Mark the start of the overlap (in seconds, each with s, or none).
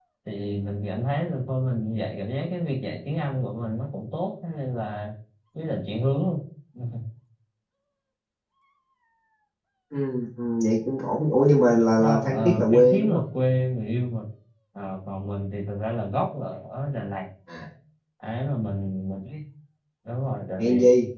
12.0 s